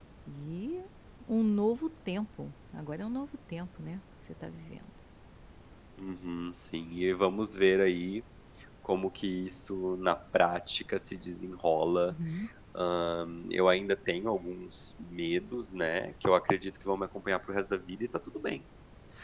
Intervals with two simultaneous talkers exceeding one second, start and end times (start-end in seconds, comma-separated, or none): none